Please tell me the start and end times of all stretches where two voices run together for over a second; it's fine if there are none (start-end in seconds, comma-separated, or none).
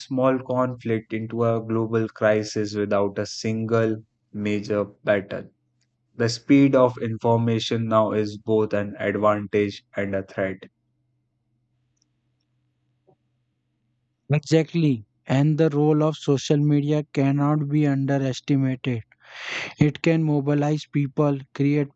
none